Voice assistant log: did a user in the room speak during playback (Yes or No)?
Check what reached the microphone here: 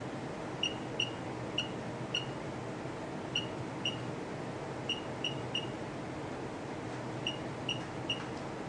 No